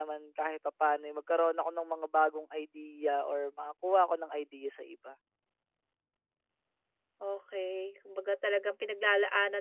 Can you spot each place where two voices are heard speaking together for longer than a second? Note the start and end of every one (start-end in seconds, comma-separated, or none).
none